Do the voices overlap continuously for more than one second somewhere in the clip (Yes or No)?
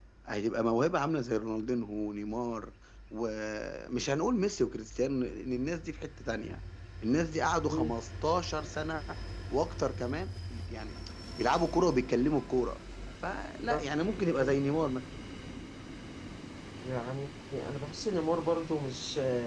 No